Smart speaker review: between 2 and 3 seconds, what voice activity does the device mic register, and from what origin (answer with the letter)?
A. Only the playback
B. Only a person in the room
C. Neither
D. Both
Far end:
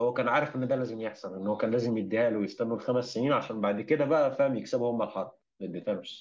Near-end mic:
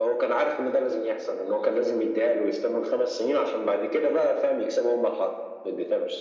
A